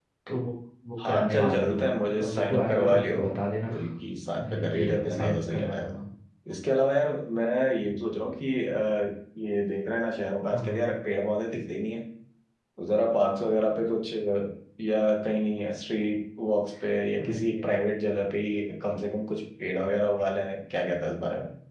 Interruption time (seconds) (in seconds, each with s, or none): 1.1 s